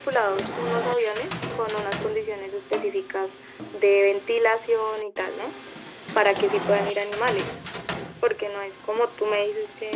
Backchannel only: Yes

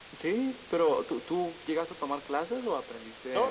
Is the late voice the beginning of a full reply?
Yes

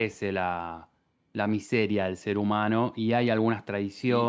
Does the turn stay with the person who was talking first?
No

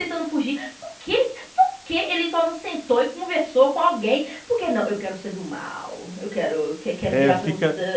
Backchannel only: No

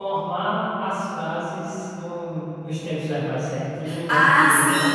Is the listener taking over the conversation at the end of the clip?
Yes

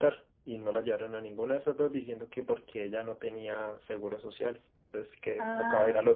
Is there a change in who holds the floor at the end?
Yes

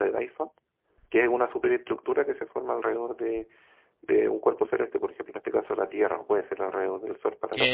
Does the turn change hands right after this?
Yes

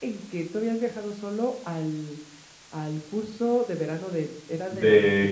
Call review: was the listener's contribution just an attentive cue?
No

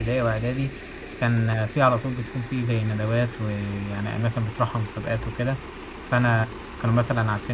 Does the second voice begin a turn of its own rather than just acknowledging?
No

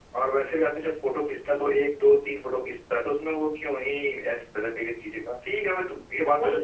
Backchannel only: Yes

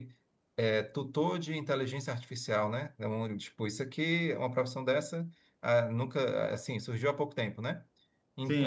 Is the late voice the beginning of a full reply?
Yes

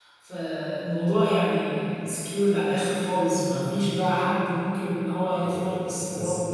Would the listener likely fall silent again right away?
No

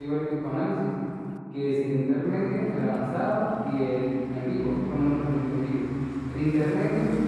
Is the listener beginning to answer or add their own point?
Yes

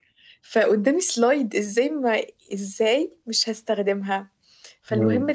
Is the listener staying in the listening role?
Yes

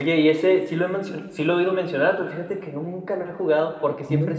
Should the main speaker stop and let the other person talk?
No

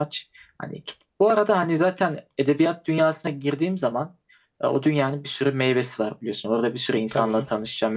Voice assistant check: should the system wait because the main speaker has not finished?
Yes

